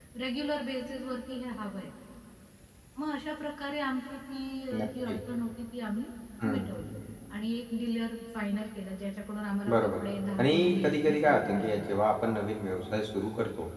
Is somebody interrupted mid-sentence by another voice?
Yes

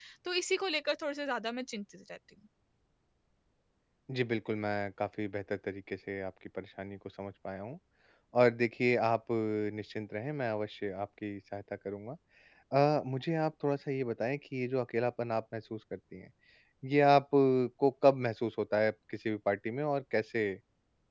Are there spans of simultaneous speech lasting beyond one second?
No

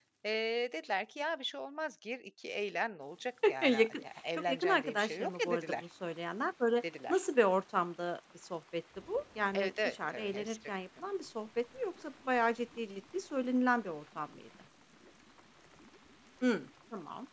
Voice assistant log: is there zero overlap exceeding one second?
No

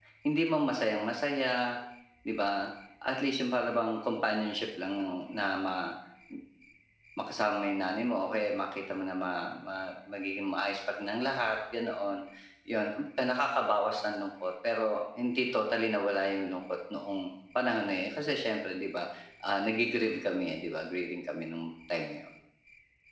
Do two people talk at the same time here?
No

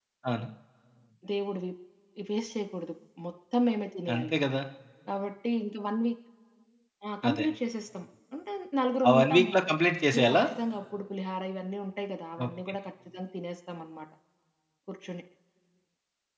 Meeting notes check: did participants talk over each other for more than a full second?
No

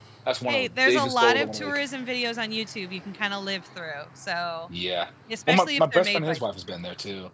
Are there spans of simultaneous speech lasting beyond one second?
Yes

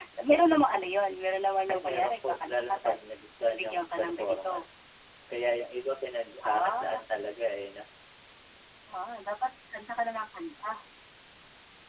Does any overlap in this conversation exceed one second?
Yes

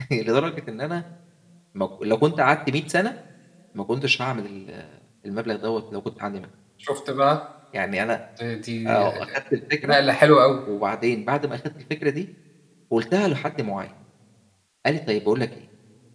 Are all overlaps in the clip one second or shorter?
Yes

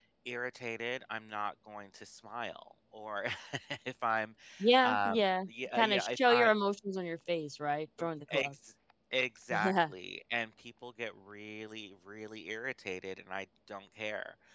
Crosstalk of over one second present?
Yes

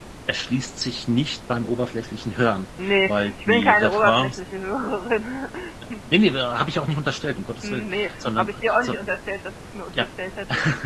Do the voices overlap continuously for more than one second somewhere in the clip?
Yes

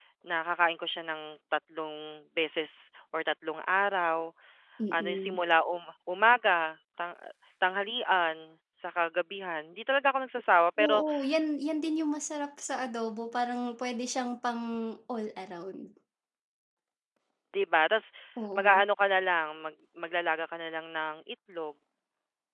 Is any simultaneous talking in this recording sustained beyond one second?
No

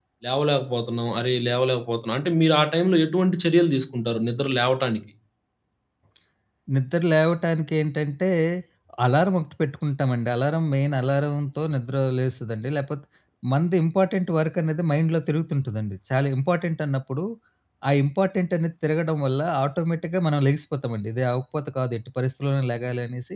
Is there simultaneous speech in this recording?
No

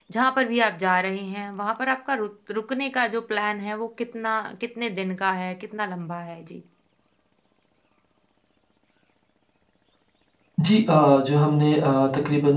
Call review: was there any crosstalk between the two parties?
No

